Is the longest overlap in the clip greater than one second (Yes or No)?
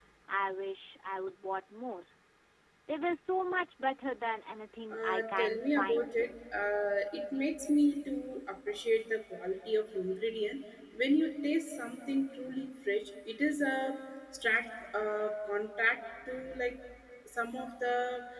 Yes